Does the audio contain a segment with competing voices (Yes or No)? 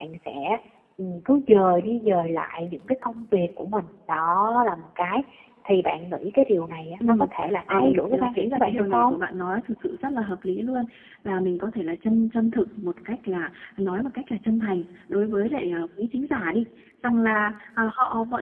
Yes